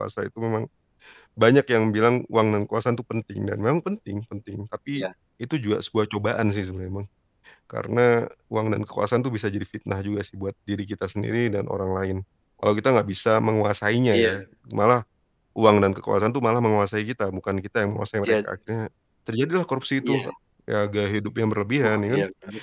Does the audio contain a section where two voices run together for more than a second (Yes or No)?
No